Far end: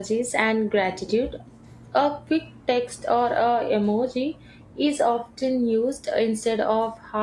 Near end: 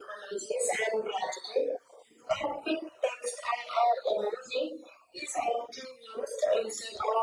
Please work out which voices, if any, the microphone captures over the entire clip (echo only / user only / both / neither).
echo only